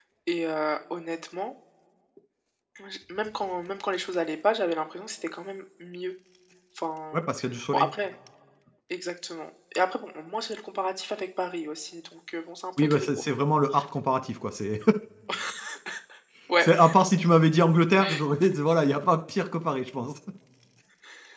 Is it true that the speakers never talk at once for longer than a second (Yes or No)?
Yes